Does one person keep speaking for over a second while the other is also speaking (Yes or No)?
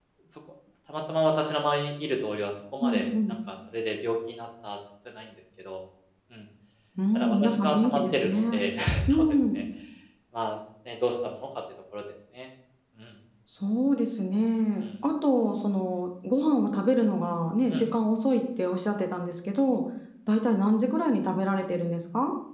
Yes